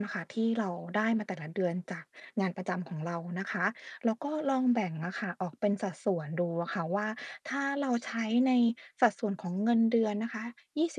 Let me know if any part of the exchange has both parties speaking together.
No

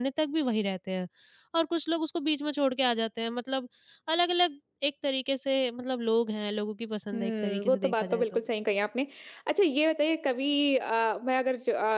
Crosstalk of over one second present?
Yes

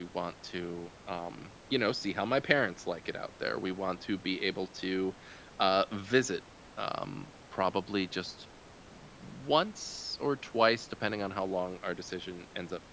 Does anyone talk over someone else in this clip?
No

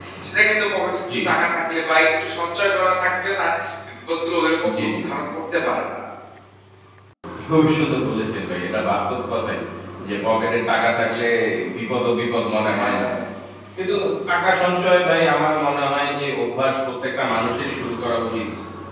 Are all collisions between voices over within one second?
Yes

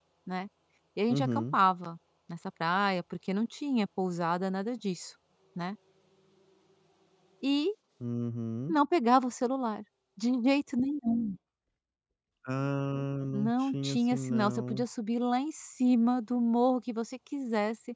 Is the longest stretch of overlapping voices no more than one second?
No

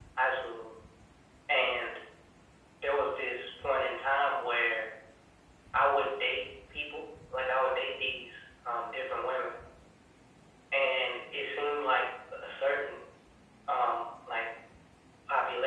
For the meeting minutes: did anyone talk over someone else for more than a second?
No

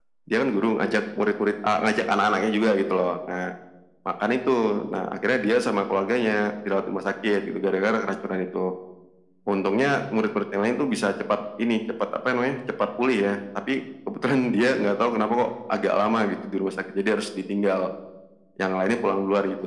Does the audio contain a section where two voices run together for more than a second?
No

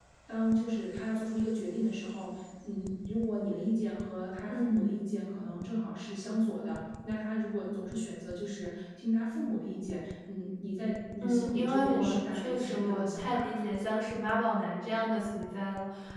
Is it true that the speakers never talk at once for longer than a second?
No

